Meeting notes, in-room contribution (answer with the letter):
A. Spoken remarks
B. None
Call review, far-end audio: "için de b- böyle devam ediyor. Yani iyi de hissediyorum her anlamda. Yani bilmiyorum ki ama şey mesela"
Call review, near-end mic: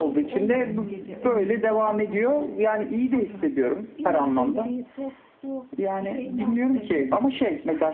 A